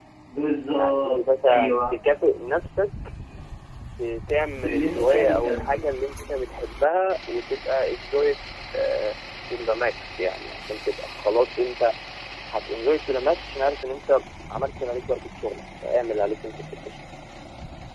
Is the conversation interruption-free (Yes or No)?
No